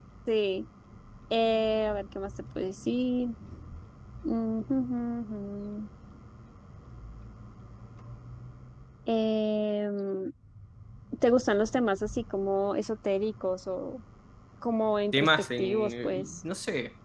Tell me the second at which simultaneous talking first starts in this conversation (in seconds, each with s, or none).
15.1 s